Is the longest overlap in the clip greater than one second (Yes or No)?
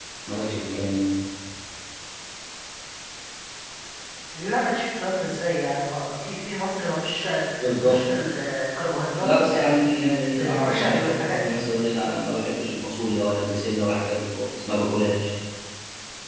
Yes